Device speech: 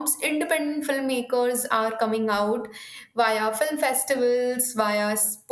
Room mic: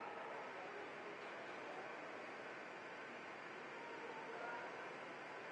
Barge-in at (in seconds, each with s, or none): none